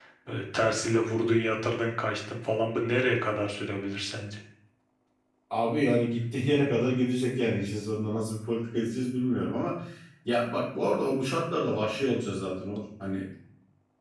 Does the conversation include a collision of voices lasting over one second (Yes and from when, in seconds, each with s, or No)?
No